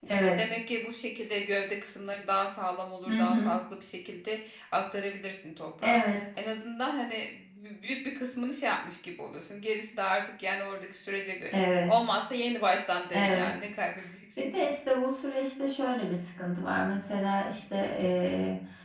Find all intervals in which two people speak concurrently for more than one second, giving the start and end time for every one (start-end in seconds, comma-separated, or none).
none